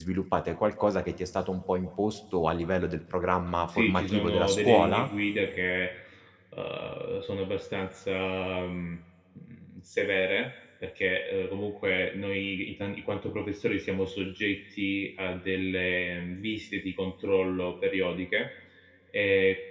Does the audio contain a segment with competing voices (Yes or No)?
Yes